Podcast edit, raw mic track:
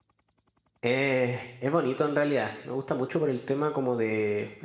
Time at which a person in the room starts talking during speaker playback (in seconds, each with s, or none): 0.8 s